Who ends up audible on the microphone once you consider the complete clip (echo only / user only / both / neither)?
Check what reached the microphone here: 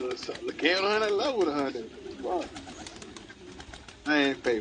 echo only